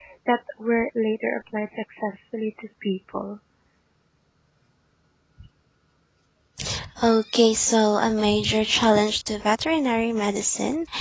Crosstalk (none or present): none